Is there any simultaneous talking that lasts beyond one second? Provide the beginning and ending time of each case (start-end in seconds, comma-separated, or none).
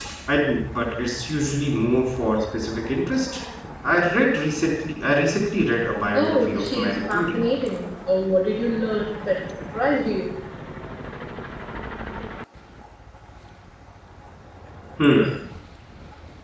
6.1-7.4